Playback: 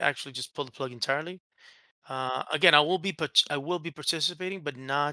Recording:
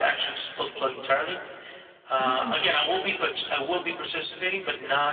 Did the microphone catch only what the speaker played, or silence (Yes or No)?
No